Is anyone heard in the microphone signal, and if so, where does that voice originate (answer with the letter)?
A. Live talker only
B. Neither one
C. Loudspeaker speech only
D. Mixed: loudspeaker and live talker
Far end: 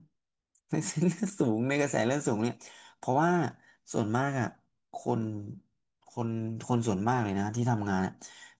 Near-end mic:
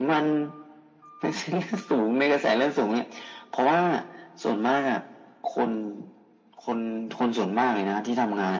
C